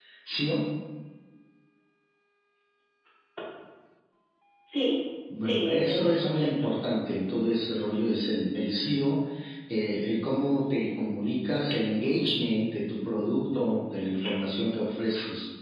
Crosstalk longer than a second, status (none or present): present